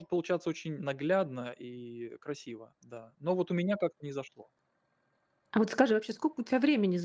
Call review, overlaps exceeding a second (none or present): none